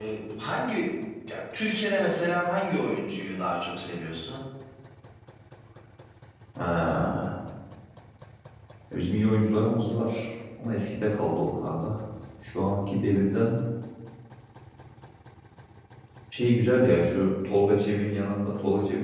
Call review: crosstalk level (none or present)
none